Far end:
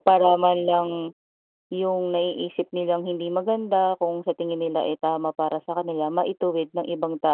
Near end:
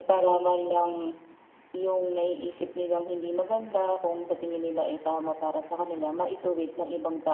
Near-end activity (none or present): none